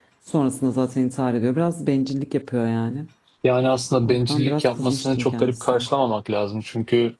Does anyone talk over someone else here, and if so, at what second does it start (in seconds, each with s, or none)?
4.0 s